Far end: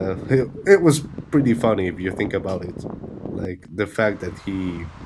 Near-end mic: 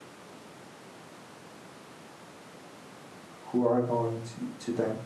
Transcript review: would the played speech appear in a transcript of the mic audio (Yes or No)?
No